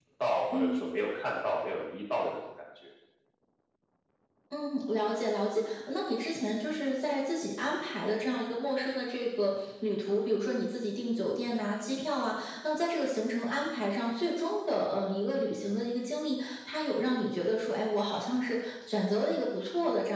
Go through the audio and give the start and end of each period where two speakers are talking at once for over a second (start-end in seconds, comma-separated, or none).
none